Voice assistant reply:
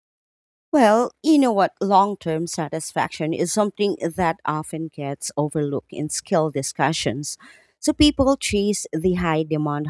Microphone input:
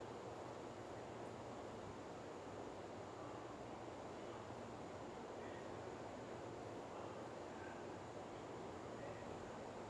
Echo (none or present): none